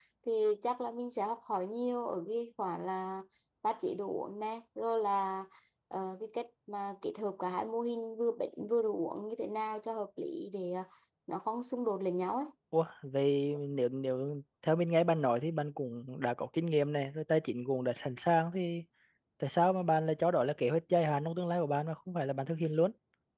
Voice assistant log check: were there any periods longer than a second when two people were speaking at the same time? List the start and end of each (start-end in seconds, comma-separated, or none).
none